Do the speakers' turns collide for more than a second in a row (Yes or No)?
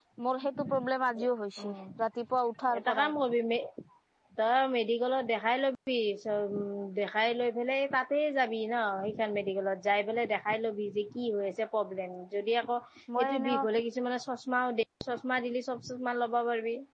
No